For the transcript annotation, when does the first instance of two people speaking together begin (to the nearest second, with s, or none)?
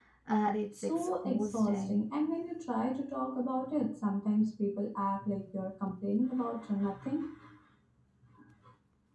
1 s